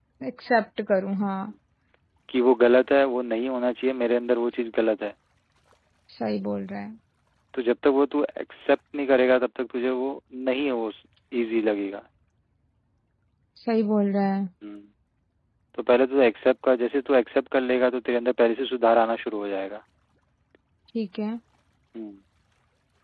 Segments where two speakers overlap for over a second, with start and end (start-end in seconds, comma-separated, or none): none